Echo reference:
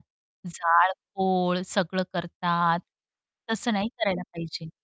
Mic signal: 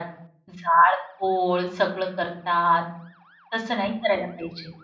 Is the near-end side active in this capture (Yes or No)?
No